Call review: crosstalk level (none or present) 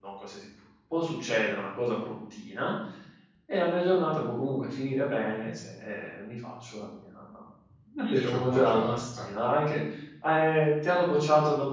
present